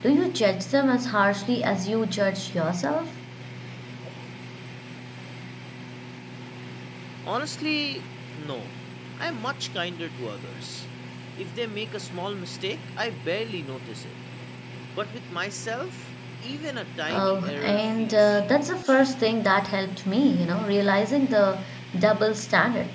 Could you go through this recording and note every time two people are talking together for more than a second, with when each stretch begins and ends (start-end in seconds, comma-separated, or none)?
17.1-19.0